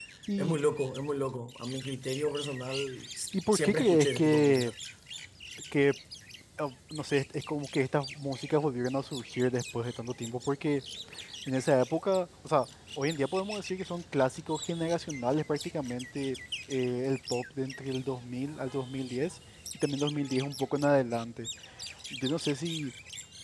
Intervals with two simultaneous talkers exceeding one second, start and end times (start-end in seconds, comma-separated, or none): 3.5-4.7